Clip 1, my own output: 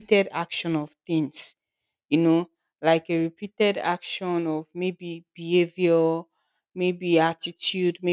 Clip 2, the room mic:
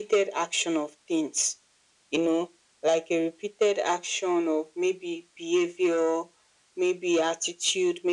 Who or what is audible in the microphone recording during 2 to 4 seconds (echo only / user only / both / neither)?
echo only